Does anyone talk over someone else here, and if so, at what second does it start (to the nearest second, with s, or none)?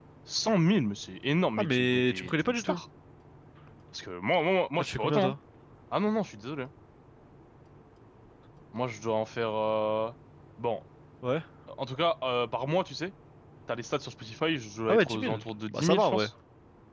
2 s